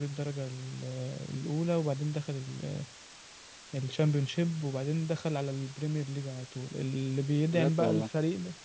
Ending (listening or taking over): listening